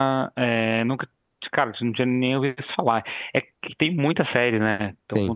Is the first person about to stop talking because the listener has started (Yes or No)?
No